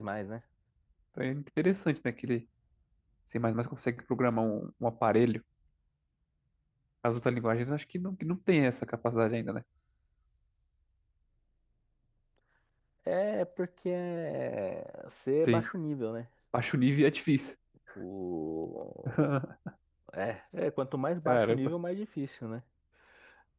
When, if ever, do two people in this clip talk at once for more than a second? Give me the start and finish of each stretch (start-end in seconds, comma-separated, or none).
none